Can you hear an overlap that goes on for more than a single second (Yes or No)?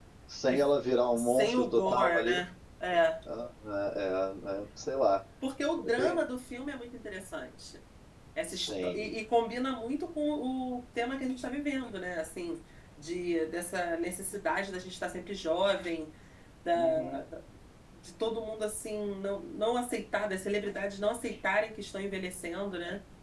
Yes